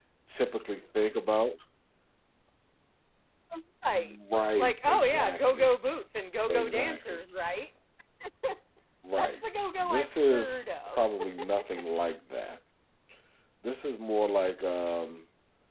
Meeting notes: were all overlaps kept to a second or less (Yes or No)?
No